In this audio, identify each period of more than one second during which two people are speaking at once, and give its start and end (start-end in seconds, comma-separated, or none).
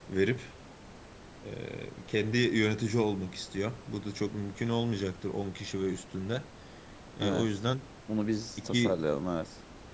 none